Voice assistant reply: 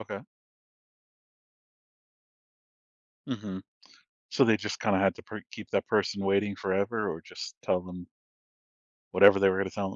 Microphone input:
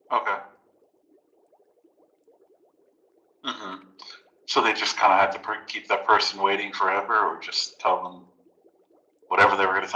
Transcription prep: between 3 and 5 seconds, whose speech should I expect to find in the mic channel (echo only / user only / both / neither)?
echo only